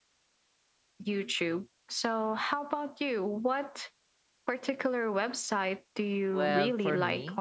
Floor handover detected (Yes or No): Yes